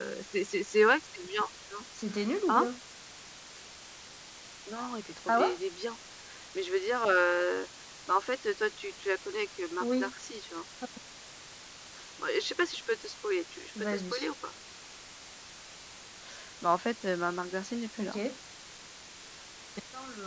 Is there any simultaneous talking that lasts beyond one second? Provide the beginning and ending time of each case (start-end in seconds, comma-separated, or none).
none